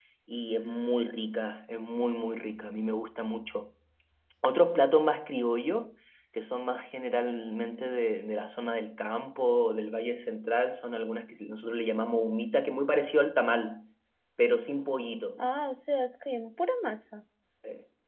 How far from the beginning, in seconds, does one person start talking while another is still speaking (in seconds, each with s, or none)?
none